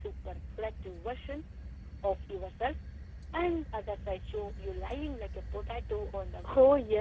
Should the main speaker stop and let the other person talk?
Yes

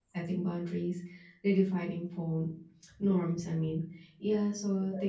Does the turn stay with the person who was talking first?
Yes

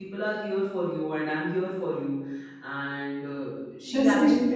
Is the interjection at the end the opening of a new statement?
Yes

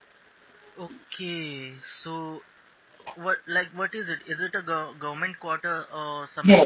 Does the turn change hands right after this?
Yes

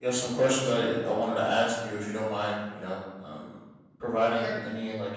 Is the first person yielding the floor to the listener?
No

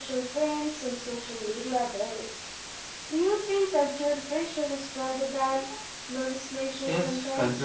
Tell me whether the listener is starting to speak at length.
Yes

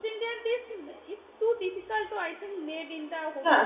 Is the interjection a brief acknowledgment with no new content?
No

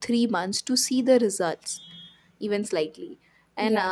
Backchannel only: Yes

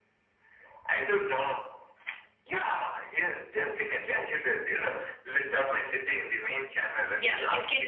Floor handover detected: Yes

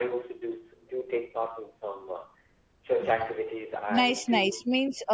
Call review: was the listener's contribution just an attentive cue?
No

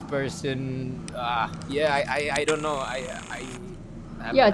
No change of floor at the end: No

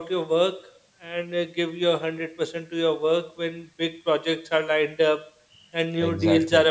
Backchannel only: Yes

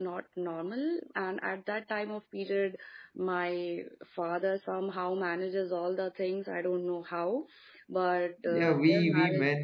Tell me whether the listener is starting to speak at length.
Yes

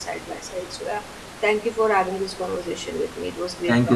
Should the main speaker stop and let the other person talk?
Yes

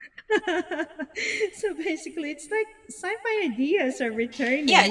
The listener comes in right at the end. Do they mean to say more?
Yes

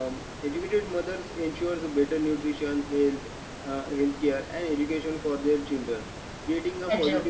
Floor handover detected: No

